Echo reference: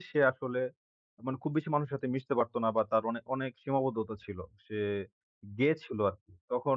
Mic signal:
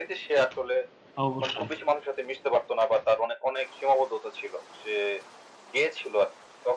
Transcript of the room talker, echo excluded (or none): অবশ্যই।